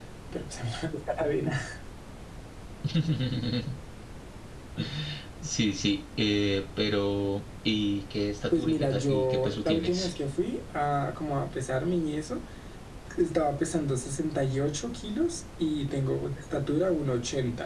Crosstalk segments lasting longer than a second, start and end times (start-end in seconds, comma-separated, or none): 8.5-10.1